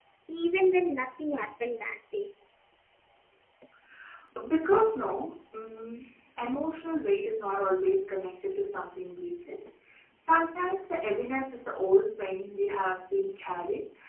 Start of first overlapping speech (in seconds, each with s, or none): none